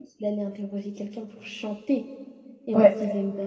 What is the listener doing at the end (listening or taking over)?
listening